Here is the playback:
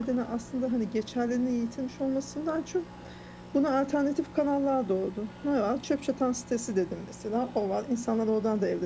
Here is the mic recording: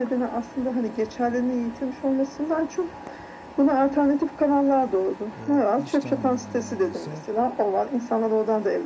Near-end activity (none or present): present